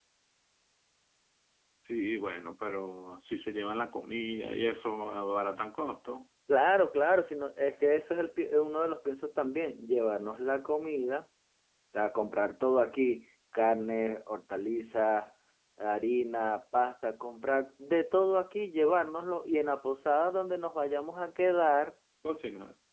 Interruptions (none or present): none